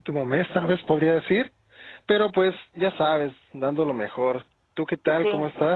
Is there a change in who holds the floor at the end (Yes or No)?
Yes